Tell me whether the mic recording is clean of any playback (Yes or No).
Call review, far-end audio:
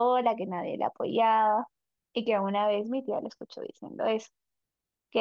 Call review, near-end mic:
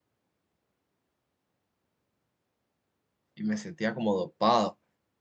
Yes